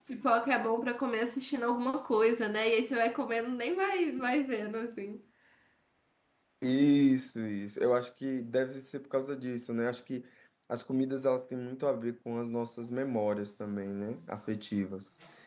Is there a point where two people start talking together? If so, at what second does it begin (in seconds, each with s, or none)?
none